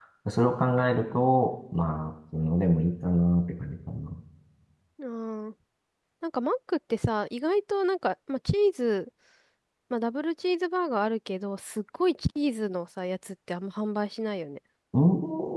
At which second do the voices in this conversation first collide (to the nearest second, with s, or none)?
none